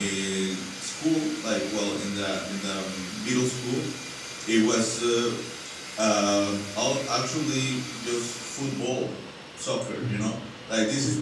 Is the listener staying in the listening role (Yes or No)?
Yes